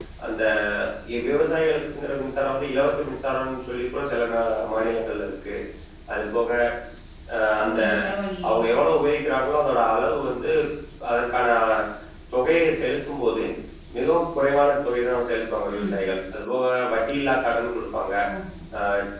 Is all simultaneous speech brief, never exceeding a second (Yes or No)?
Yes